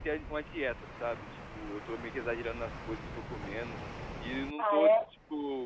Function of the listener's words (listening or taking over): listening